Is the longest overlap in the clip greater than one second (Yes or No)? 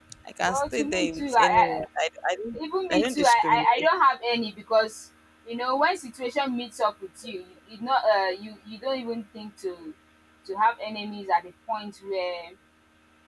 Yes